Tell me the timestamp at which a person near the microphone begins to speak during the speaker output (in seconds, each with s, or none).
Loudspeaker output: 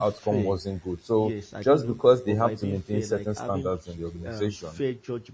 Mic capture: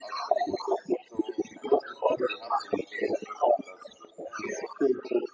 none